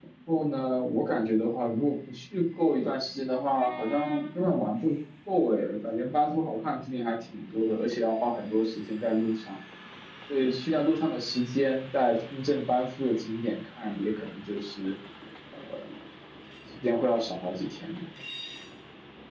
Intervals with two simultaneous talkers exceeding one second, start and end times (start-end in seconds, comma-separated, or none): none